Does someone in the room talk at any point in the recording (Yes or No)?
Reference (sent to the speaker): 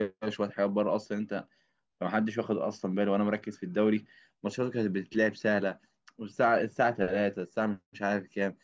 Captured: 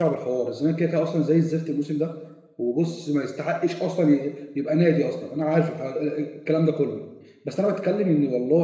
Yes